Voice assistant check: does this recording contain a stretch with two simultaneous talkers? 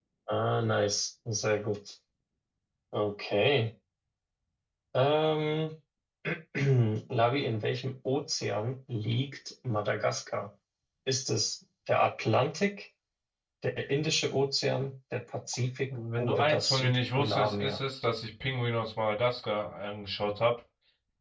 Yes, from 16.2 s

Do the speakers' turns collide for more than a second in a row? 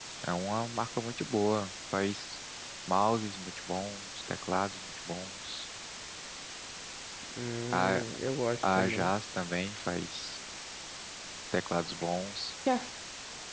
No

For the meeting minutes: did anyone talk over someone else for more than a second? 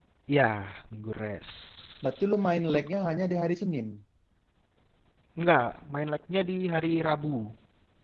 No

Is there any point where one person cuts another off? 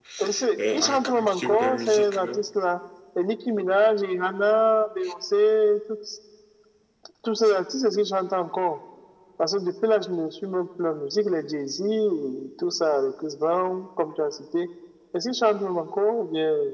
Yes, from 0.7 s

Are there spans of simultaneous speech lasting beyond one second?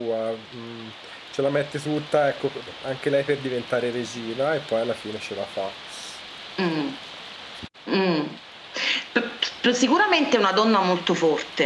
No

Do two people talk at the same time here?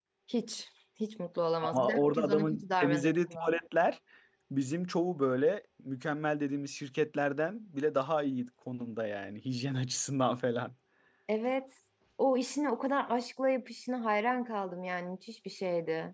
Yes, from 1.6 s

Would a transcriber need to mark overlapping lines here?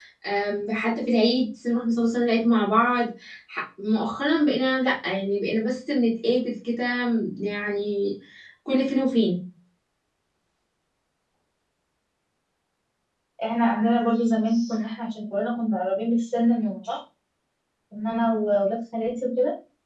No

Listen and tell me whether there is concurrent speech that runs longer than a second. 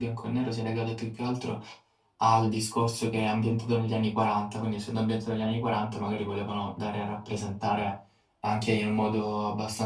No

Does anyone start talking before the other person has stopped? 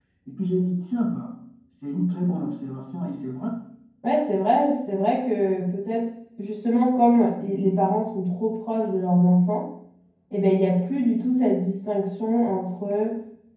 No

